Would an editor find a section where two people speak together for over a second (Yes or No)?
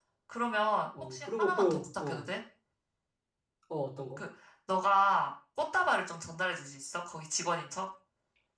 Yes